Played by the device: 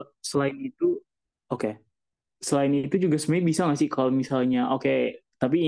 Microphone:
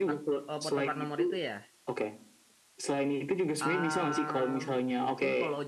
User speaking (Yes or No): Yes